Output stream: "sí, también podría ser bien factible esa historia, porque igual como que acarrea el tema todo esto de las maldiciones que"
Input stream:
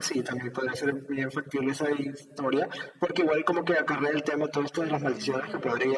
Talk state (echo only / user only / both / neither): both